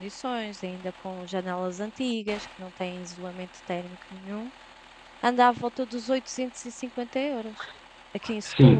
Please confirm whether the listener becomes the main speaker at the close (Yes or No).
Yes